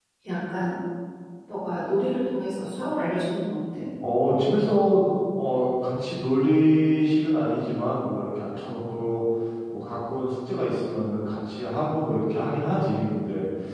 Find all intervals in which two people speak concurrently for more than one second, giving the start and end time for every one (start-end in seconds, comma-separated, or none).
none